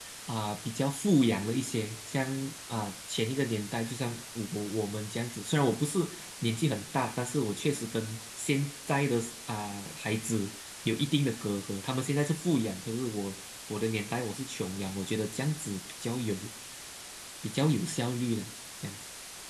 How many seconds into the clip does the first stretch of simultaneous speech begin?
none

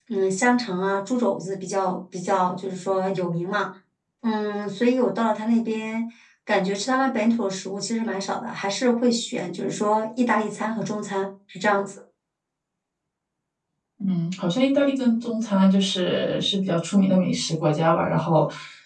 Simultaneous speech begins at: none

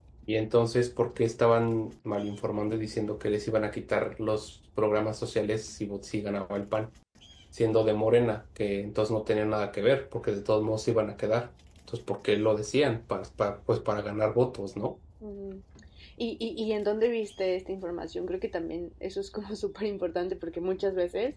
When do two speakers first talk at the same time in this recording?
none

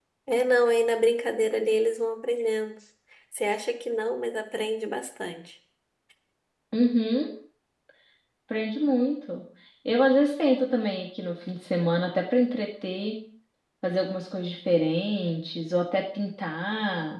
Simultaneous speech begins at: none

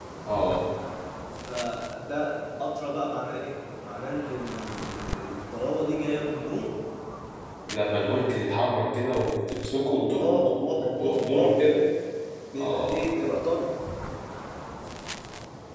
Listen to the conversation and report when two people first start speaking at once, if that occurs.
9.9 s

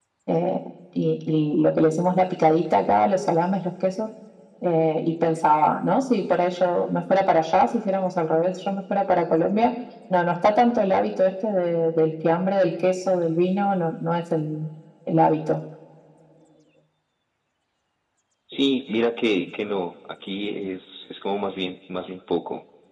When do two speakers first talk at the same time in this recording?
none

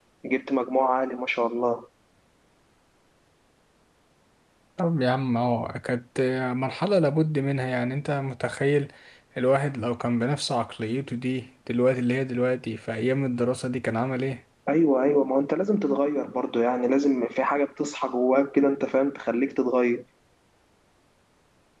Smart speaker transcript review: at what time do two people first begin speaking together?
none

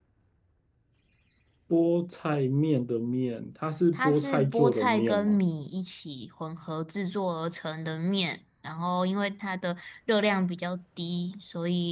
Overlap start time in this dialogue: 4.0 s

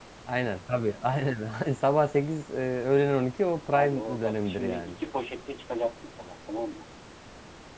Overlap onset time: 3.7 s

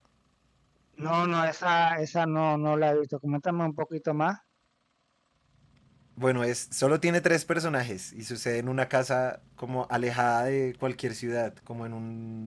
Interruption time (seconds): none

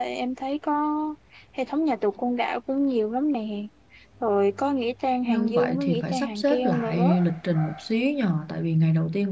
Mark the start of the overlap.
5.2 s

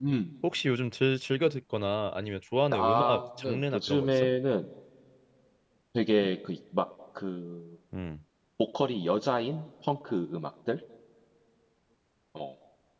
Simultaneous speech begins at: 2.7 s

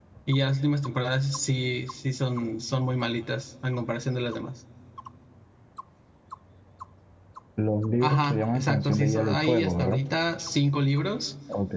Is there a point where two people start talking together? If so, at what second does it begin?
8.0 s

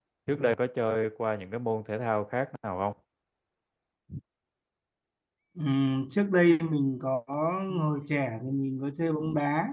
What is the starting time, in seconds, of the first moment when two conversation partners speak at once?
none

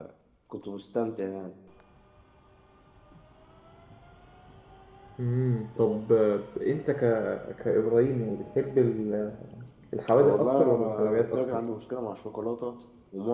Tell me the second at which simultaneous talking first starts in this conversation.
10.2 s

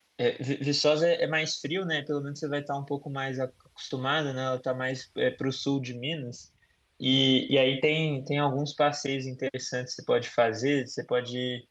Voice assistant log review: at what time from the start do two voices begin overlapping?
none

